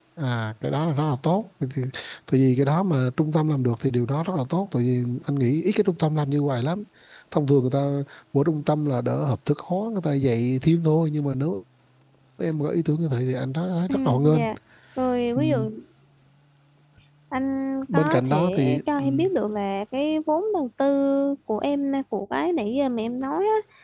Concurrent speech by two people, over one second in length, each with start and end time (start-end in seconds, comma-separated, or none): 17.9-19.3